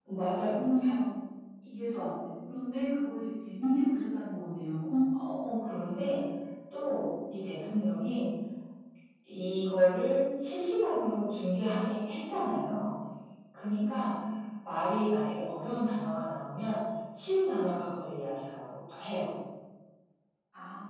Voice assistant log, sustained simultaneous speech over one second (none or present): none